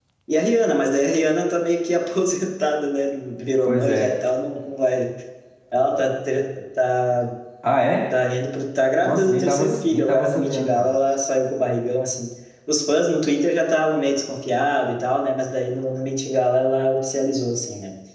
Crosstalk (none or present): present